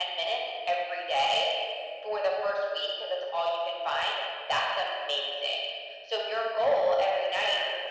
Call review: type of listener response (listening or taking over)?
listening